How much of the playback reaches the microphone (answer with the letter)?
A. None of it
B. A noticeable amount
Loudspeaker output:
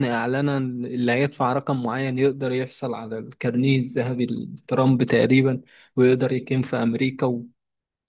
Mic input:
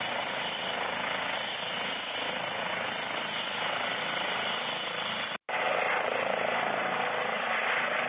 A